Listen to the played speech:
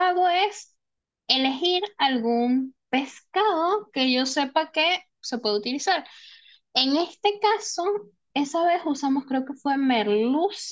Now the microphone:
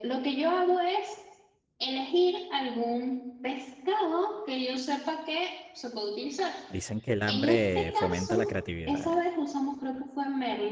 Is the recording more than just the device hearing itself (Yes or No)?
Yes